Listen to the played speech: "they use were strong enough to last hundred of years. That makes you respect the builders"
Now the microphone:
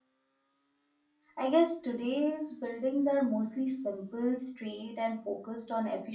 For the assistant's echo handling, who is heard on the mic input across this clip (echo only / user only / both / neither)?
user only